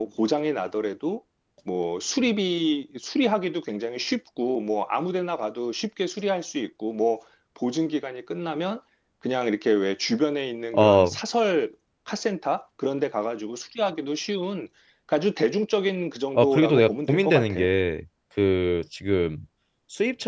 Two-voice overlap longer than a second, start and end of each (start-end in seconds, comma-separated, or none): 16.4-17.7